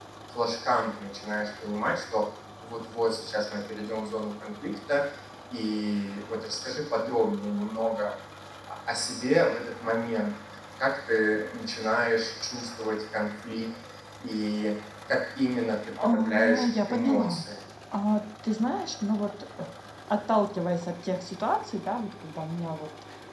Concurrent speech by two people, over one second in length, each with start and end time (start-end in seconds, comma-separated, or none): 16.0-17.4